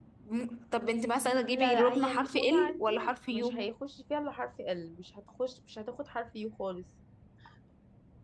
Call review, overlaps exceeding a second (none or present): present